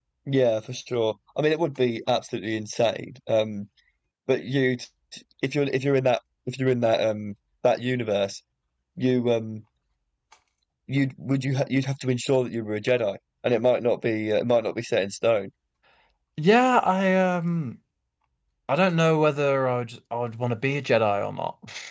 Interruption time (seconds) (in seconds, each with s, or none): none